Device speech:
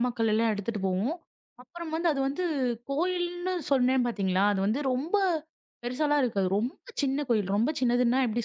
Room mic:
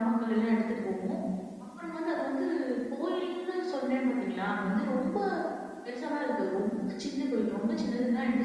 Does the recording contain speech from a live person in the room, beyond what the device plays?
No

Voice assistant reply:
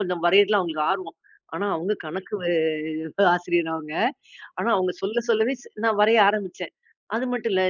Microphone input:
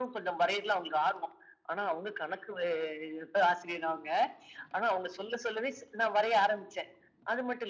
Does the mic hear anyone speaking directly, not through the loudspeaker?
No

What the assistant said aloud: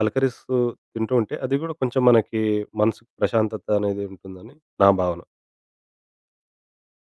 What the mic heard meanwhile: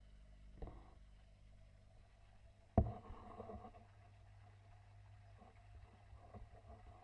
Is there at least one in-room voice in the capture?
No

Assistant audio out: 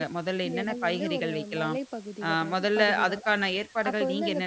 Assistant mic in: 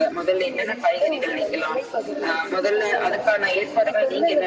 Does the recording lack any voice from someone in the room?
No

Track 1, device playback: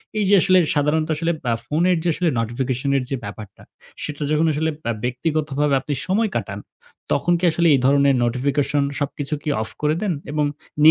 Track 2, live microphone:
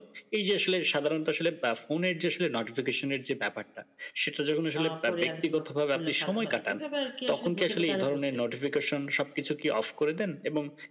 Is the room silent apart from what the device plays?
No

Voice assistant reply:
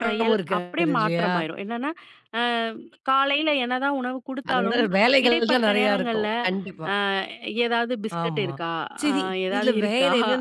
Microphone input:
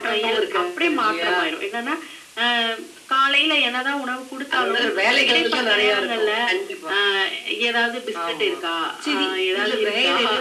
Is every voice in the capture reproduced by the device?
Yes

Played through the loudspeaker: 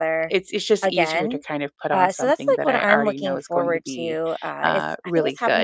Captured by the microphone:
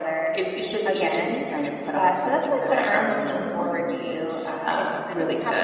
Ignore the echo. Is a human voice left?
No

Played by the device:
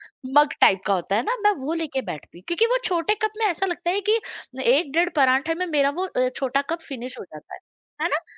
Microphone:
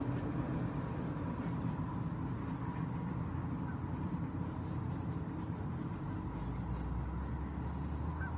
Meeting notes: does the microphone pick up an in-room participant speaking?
No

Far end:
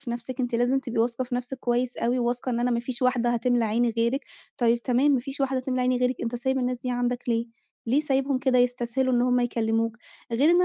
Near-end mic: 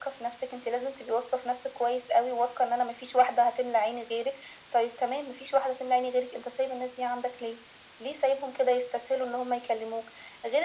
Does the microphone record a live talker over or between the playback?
No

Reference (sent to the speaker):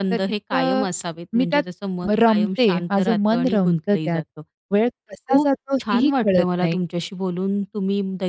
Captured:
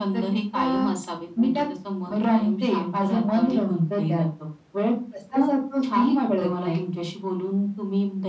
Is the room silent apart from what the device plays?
Yes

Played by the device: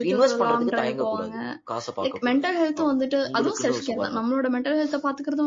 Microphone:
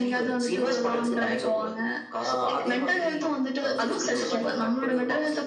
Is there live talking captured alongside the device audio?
Yes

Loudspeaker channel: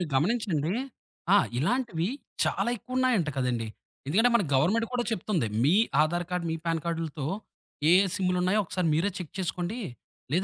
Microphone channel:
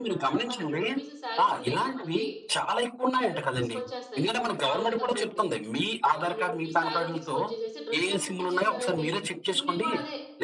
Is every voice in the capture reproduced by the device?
No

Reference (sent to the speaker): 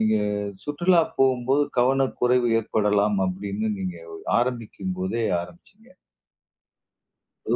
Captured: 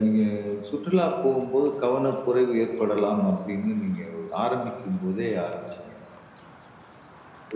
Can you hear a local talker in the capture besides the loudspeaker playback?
No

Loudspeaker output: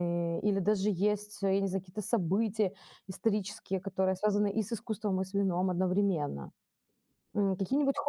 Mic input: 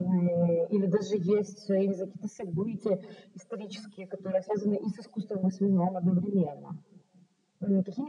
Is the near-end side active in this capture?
No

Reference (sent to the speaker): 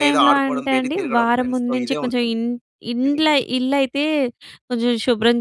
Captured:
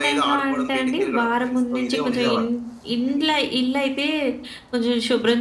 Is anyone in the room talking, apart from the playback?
Yes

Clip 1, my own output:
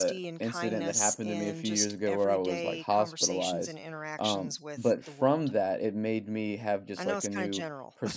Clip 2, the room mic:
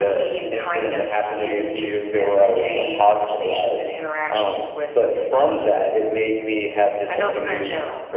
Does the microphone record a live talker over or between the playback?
No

